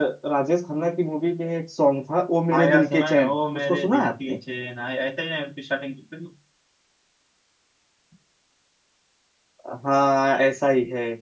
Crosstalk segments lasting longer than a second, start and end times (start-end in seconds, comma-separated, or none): 2.5-4.4